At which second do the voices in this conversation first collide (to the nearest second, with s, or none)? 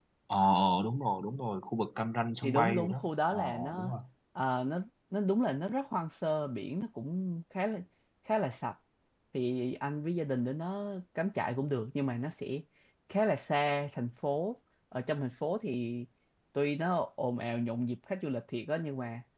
2 s